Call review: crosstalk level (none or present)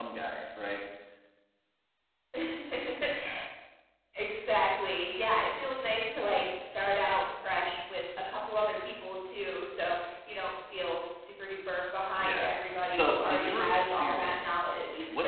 present